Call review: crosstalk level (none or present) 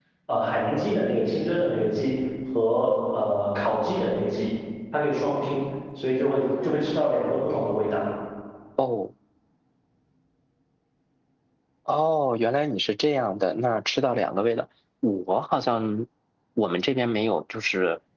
none